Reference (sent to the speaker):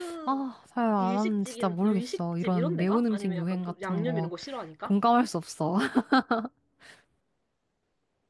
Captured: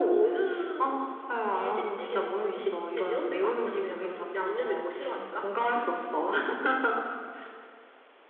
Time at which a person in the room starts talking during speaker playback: 5 s

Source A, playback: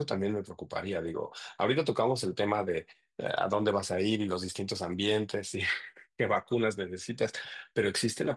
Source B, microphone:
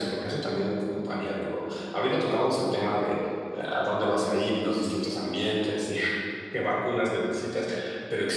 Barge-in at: none

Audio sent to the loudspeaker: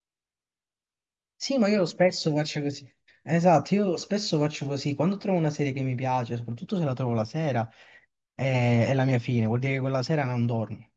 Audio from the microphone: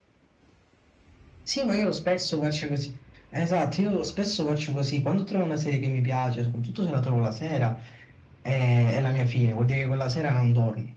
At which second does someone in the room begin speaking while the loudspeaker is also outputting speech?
none

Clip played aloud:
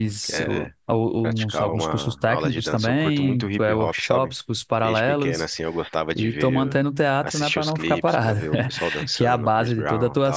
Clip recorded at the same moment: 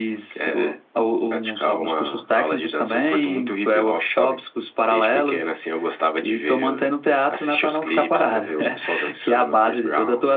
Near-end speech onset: none

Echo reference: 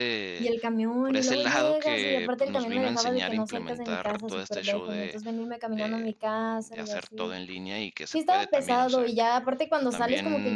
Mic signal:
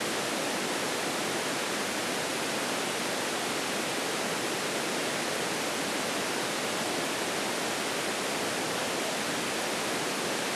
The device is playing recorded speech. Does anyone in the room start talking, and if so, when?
none

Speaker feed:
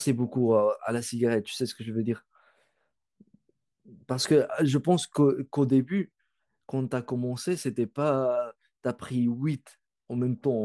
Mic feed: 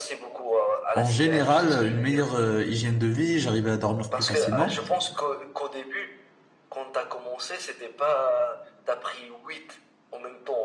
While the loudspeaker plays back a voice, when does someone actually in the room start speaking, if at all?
1 s

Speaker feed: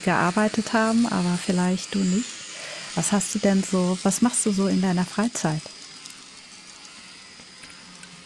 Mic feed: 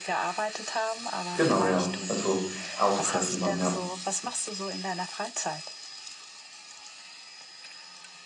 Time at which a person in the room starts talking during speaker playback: 1 s

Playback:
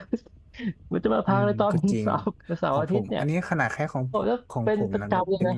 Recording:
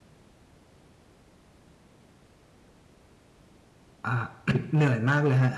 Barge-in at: 4 s

